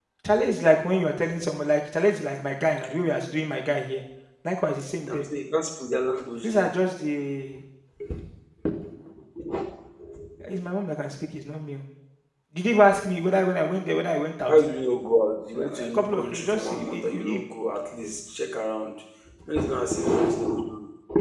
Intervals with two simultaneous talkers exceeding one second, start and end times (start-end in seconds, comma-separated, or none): 15.5-17.4